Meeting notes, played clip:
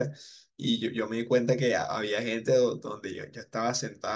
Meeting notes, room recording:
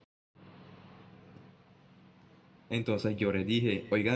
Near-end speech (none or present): present